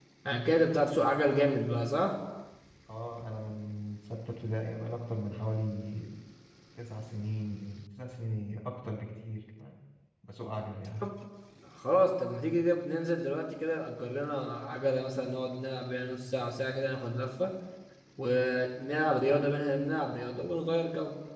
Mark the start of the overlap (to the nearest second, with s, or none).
none